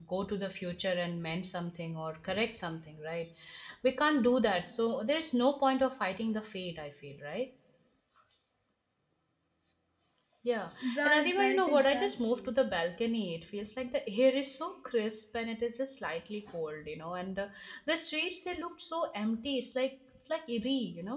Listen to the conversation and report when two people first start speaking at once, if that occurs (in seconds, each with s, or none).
11.0 s